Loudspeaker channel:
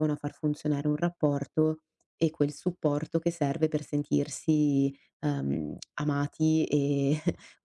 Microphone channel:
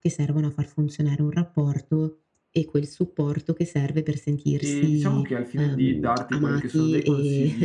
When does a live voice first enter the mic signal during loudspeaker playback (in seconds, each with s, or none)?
4.6 s